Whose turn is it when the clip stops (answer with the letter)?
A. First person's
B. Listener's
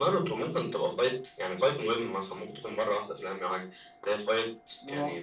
A